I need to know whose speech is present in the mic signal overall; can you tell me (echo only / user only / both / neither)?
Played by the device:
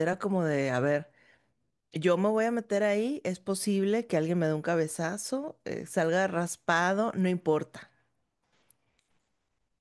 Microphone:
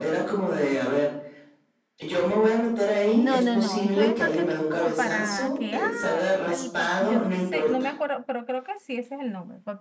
both